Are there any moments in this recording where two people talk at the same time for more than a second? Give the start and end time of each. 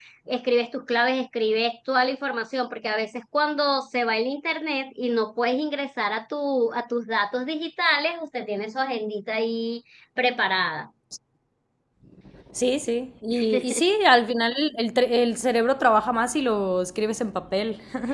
none

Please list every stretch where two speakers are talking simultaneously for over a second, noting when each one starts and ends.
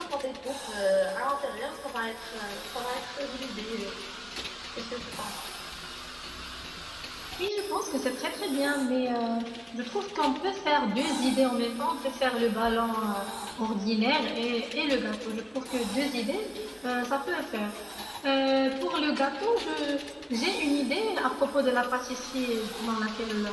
none

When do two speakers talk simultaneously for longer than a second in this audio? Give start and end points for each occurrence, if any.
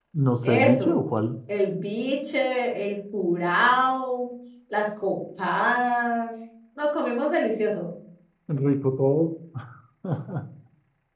none

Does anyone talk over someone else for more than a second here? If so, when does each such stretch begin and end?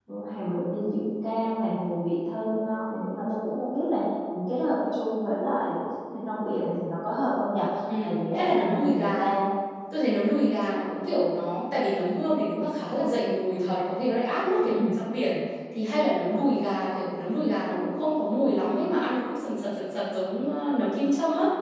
8.0-9.3

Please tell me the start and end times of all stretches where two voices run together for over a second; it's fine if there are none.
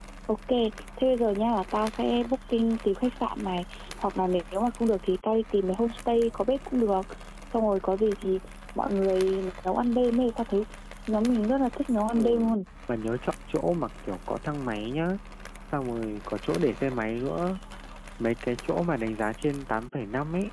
none

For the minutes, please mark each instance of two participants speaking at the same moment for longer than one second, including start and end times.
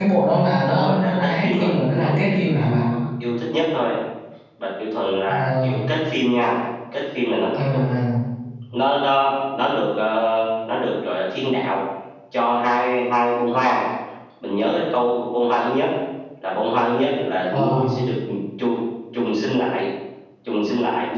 0.6-2.9

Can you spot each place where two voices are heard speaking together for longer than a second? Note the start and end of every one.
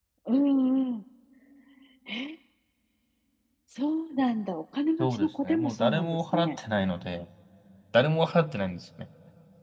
5.0-6.6

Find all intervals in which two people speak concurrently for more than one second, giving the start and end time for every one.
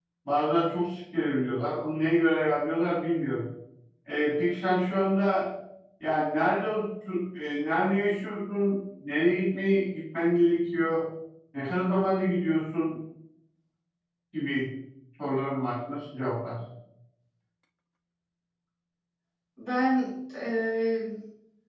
none

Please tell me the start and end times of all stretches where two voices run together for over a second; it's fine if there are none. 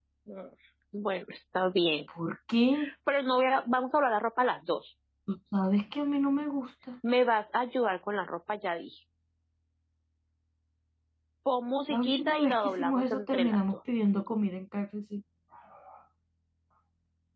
11.9-13.6

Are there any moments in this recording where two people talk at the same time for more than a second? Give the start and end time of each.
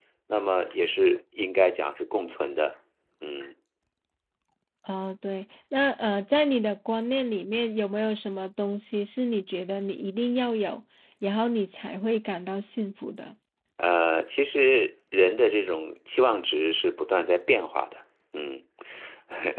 none

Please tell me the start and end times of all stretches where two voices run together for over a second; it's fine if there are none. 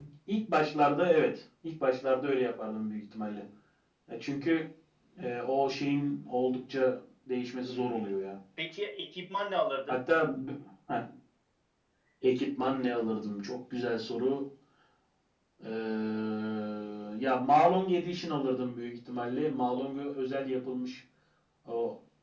none

